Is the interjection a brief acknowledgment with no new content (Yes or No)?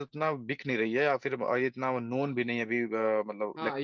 No